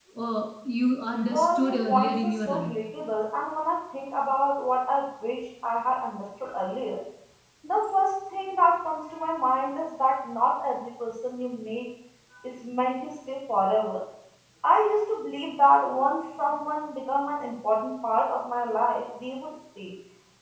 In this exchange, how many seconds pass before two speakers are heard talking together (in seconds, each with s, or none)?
1.3 s